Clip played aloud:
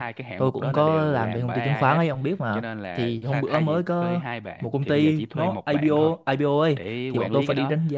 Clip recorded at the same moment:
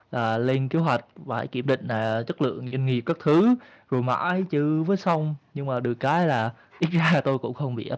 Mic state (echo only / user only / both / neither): user only